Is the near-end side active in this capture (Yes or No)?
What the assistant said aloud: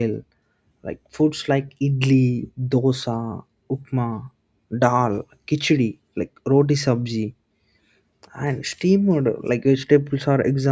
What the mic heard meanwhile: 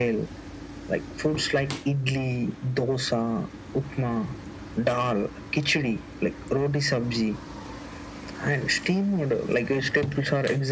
No